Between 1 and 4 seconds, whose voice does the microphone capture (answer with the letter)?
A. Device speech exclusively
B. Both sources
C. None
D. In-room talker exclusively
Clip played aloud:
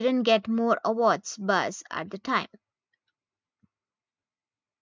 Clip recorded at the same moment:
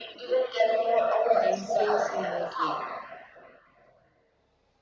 B